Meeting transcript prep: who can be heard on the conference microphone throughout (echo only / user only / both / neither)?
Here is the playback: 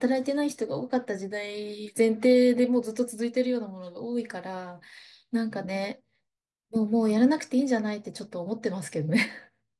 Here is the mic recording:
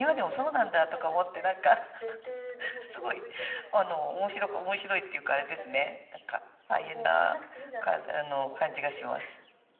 both